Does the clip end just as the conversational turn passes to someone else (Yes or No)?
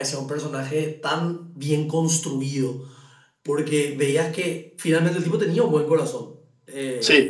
No